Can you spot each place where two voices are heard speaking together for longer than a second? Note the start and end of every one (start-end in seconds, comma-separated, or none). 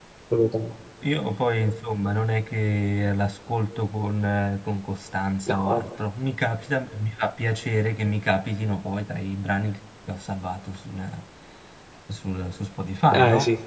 none